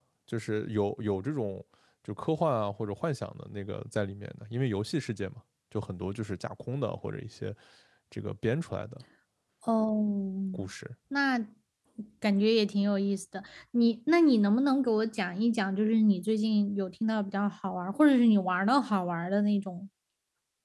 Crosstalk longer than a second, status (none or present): none